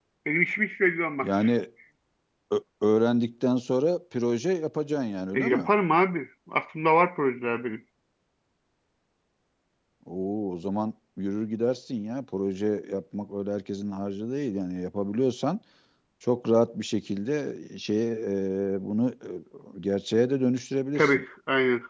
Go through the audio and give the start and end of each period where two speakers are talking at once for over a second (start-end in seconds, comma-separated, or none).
none